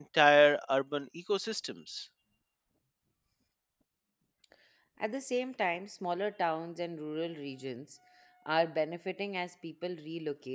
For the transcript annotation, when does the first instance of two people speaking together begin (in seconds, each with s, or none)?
none